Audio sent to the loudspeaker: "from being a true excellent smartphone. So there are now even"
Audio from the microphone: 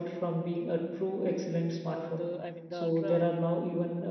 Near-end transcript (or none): Uh, the I mean the Ultra